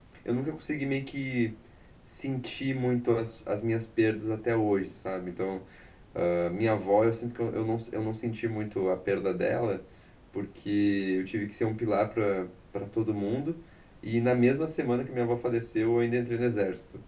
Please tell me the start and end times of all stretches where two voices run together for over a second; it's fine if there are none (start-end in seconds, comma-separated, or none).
none